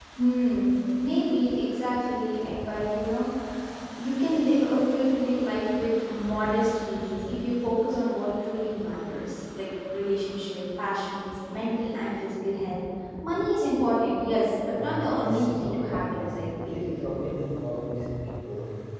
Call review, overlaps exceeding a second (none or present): present